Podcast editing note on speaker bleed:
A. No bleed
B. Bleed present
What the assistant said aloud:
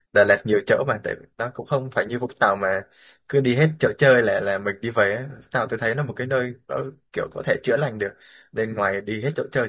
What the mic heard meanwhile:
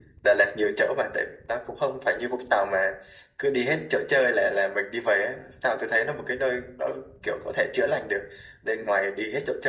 B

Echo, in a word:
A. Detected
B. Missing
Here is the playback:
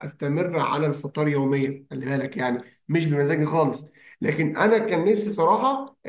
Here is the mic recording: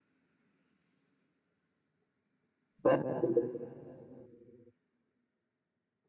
B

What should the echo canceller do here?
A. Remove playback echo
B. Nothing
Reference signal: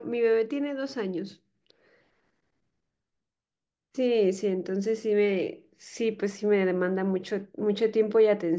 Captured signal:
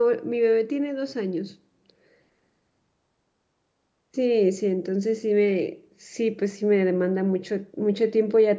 A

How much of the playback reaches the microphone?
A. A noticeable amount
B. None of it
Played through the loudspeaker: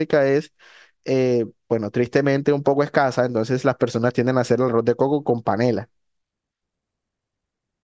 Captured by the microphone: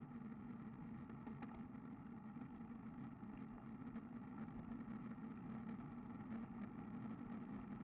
B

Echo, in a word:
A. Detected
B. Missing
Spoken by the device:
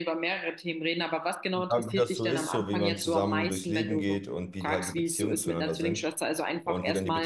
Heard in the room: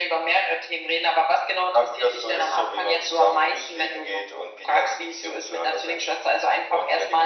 A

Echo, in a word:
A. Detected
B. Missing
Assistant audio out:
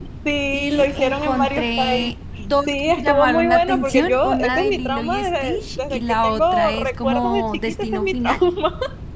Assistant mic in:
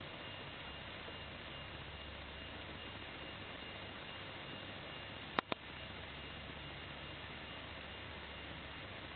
B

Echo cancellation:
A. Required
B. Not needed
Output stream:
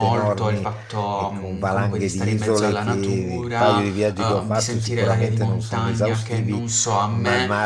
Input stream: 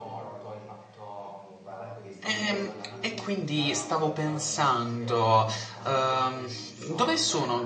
A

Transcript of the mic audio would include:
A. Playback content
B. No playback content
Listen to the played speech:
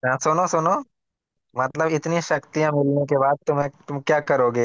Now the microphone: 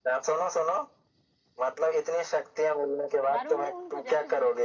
A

